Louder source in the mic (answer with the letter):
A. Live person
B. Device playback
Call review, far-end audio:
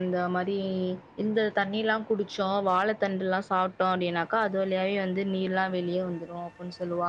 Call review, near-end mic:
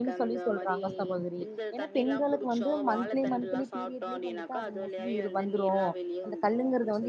A